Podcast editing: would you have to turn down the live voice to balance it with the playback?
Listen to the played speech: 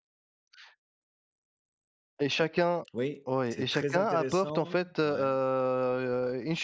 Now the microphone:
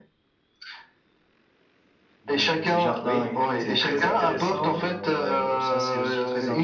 No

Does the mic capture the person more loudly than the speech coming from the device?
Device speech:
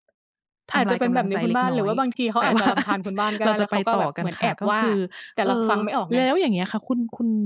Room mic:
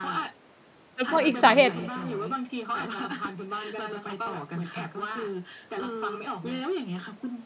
Yes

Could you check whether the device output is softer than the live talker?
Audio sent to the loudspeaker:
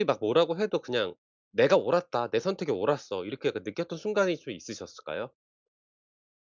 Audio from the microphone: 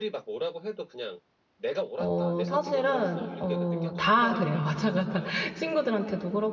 Yes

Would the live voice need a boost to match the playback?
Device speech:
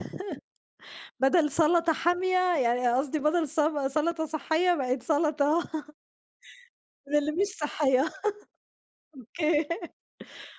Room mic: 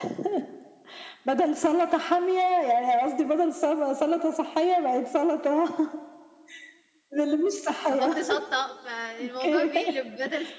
Yes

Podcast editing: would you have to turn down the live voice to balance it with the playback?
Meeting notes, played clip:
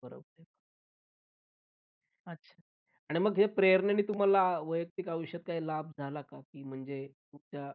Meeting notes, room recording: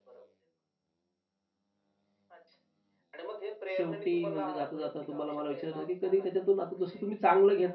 Yes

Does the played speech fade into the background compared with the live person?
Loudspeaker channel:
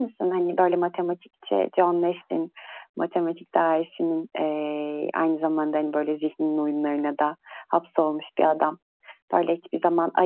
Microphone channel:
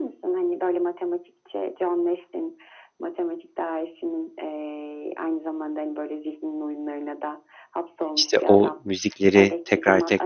Yes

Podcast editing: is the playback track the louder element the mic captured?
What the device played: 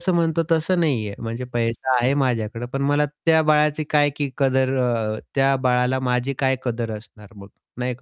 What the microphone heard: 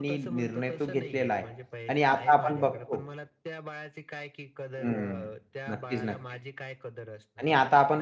No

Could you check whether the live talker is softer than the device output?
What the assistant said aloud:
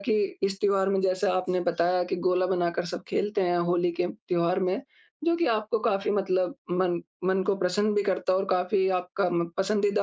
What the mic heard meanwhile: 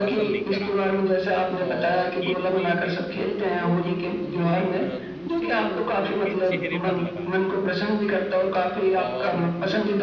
Yes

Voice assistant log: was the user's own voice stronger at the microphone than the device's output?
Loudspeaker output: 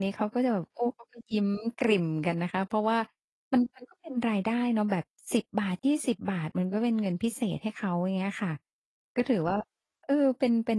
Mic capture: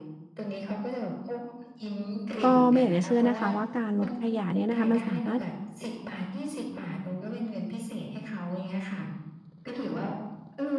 Yes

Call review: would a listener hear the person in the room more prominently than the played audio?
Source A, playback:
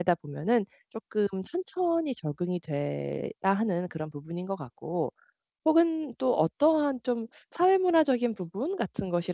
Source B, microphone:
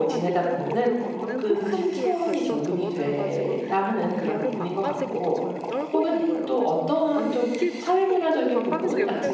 No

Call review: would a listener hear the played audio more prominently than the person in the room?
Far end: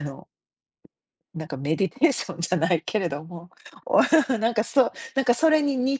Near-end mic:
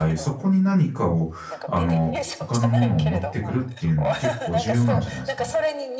No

